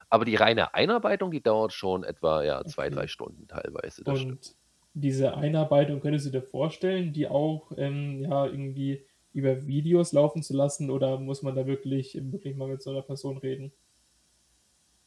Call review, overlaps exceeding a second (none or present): none